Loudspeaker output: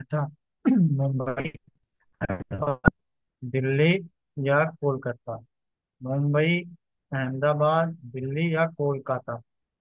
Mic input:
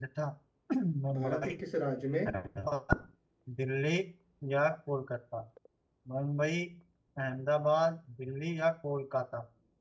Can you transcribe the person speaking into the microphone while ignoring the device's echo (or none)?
भारत के किस राज्य में